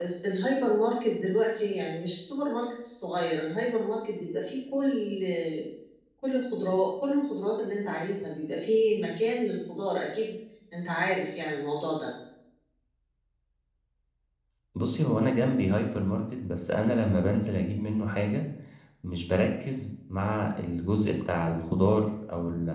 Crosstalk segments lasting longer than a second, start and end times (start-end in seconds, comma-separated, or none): none